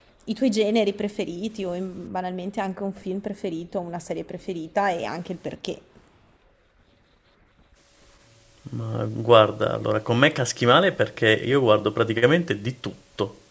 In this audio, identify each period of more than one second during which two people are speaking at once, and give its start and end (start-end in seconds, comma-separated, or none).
none